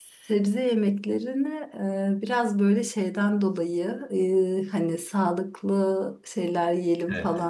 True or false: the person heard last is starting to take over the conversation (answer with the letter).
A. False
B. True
A